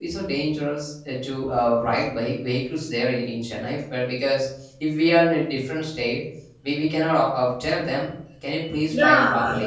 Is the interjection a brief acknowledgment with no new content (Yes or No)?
No